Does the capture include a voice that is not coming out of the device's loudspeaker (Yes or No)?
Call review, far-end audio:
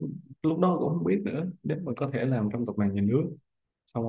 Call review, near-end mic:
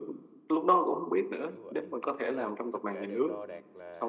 Yes